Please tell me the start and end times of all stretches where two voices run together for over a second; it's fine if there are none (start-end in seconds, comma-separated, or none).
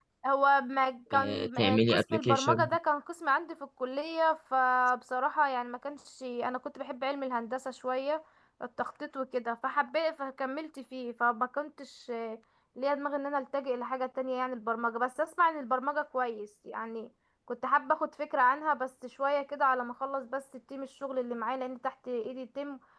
1.1-2.7